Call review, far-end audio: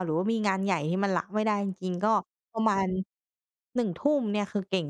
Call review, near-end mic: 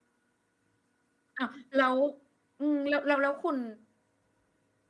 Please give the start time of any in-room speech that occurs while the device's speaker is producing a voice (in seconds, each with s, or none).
1.4 s